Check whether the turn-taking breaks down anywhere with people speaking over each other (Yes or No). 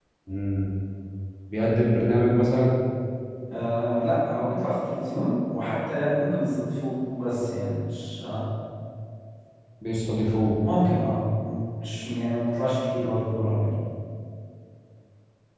No